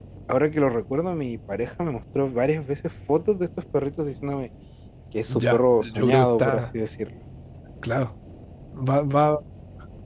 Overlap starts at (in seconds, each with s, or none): 5.3 s